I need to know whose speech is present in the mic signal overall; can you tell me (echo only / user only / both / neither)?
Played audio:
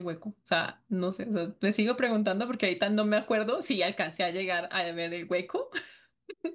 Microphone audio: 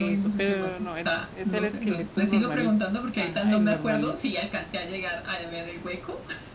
both